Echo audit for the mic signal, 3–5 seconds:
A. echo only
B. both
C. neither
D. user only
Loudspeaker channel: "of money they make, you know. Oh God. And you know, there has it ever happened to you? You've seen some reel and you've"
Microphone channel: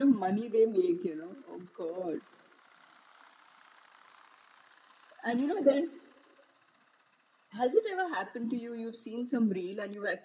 C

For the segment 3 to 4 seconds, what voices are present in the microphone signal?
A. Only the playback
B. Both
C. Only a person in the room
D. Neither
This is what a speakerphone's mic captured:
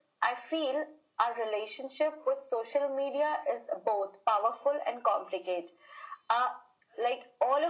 A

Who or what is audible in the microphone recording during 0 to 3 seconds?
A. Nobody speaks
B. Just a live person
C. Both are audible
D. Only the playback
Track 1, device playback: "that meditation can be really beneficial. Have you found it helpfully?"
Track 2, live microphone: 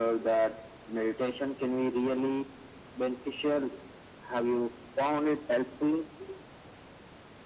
D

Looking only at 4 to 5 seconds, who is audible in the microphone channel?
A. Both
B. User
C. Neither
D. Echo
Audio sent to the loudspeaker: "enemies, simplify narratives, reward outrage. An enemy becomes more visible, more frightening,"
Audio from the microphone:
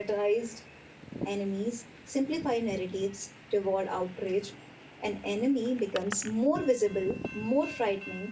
D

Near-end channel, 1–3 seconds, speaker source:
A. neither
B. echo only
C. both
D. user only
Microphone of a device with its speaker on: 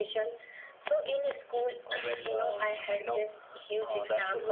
B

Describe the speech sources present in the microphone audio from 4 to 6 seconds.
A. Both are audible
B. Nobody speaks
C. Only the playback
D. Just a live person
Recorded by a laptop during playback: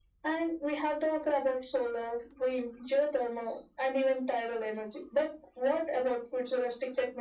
C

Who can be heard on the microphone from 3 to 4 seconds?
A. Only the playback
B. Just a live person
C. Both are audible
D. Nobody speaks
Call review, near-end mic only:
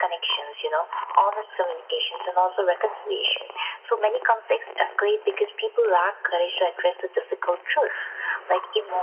A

